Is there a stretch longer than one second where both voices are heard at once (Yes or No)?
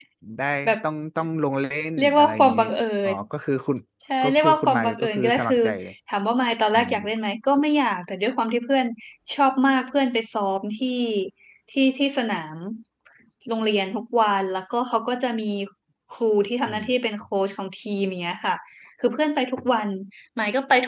Yes